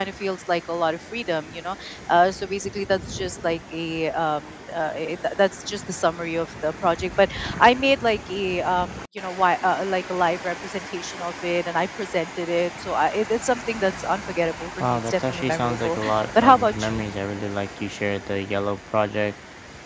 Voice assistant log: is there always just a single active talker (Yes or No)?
No